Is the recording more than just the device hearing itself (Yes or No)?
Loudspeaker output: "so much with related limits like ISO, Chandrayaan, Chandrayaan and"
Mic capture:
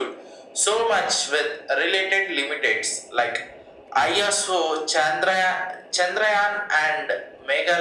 No